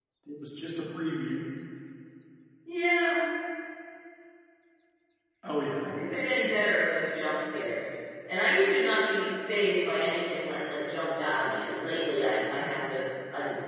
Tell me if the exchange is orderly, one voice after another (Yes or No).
Yes